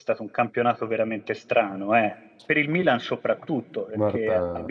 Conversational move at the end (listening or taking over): listening